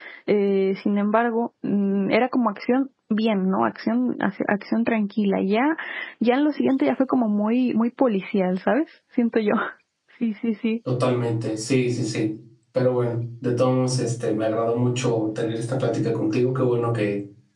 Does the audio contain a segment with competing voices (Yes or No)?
No